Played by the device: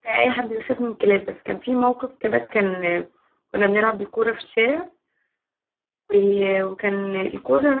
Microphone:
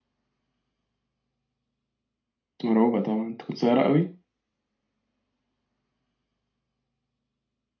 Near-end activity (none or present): present